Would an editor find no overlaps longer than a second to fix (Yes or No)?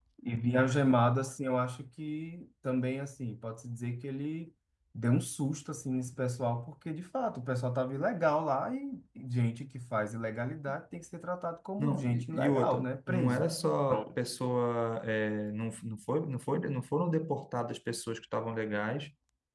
No